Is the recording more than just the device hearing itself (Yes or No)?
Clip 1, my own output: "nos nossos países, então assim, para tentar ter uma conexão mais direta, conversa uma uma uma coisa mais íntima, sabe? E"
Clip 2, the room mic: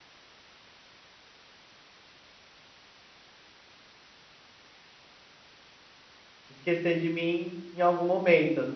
Yes